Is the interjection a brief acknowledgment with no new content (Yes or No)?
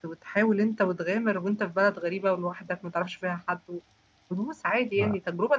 Yes